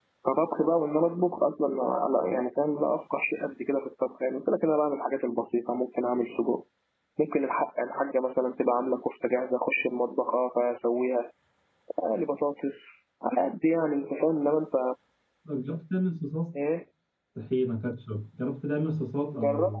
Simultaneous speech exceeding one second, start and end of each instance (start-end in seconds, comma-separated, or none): none